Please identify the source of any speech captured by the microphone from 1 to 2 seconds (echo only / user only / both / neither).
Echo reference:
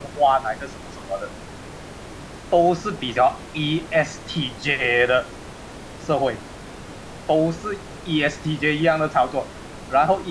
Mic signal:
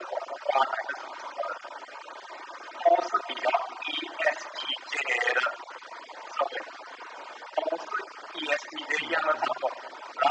echo only